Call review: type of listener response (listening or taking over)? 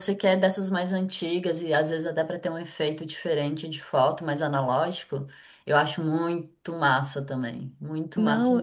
taking over